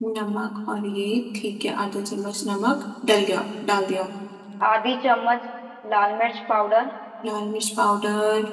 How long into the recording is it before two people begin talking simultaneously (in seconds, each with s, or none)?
none